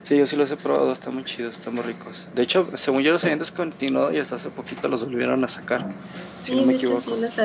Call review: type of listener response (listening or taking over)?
taking over